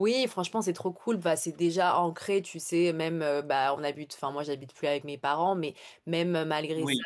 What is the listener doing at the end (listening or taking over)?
listening